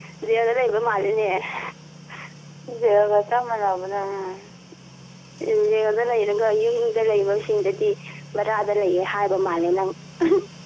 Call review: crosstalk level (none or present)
none